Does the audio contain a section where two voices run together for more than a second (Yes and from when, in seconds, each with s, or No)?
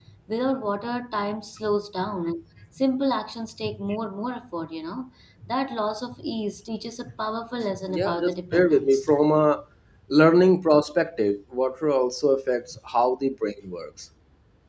Yes, from 7.9 s